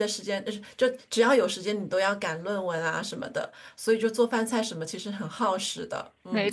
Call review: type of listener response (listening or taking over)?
taking over